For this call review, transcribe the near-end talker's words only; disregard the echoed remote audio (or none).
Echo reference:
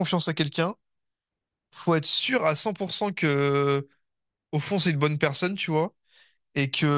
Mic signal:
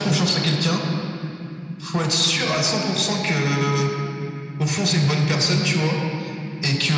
none